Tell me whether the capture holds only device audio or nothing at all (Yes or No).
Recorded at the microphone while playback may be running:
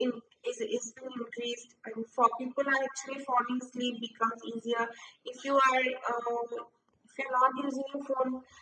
Yes